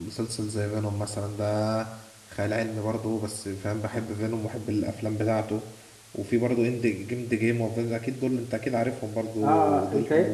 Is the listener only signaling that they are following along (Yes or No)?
No